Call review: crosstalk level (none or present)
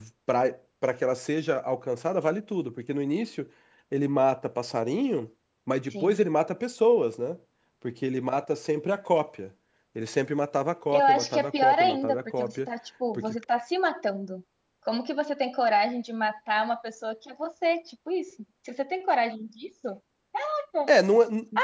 present